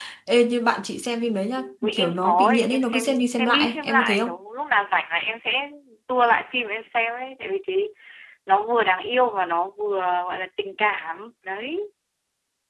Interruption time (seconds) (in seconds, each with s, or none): 1.9 s